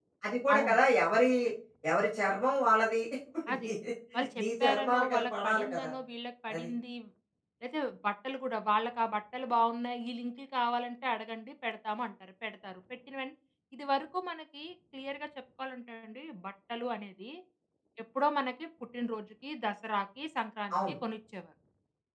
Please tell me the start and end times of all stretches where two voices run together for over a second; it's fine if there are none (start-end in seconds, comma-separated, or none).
4.4-5.9